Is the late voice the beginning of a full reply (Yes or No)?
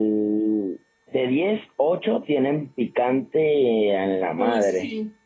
Yes